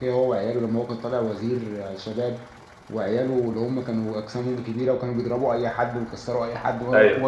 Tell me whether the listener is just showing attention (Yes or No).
Yes